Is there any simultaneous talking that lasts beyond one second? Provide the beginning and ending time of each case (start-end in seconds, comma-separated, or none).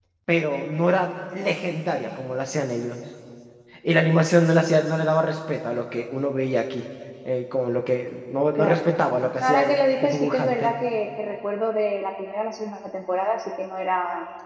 9.4-10.7